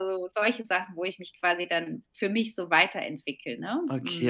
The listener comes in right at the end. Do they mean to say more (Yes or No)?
Yes